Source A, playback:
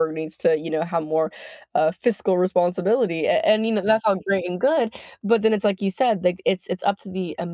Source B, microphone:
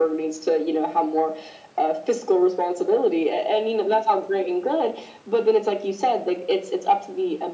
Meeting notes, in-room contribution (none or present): none